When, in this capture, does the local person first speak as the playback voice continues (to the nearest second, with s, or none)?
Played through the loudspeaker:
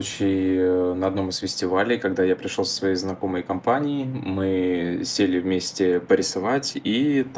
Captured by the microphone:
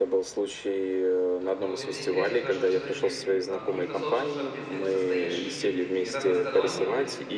1 s